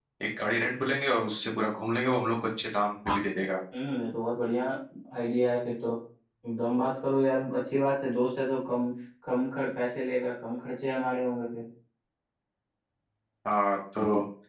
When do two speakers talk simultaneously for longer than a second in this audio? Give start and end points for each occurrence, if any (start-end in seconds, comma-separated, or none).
none